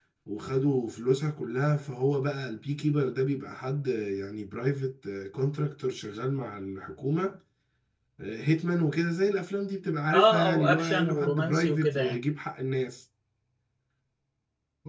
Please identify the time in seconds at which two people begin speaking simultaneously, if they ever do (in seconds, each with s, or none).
10.1 s